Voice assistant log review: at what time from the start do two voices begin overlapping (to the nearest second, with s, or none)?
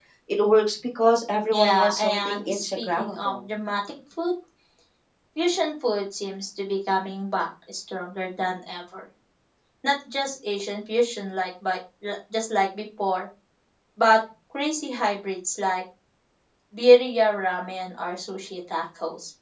2 s